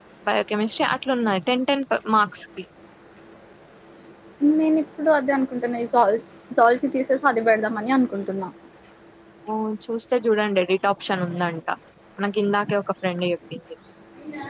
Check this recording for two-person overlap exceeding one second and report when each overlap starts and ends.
none

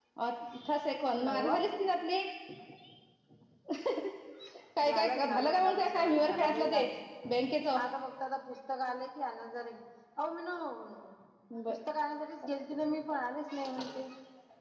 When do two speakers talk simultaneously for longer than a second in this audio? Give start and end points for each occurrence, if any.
4.9-6.8

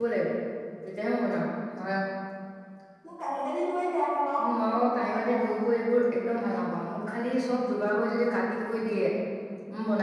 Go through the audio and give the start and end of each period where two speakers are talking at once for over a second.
4.4-5.6

